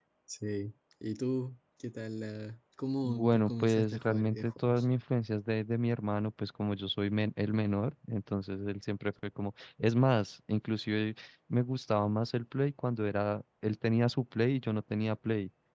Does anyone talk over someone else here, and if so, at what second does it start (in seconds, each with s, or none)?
3.0 s